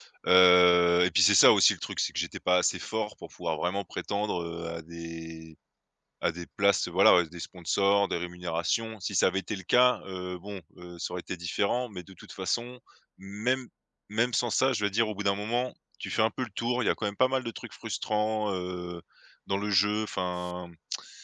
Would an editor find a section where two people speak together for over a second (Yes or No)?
No